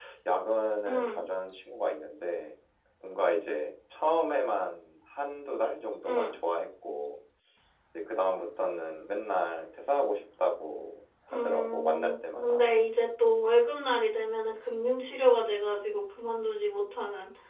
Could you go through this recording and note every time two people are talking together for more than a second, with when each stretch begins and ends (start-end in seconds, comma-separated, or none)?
11.3-12.6